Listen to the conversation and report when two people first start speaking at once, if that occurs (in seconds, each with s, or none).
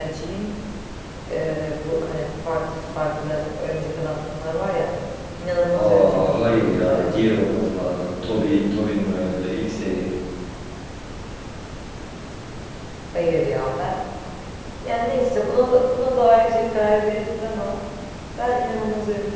5.8 s